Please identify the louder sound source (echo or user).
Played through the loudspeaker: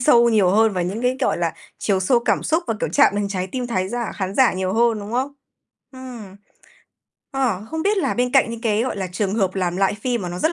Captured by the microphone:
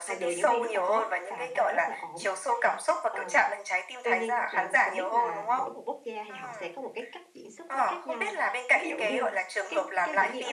echo